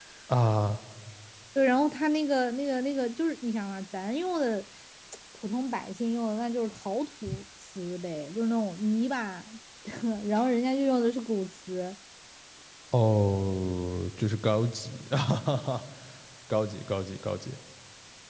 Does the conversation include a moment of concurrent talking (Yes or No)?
No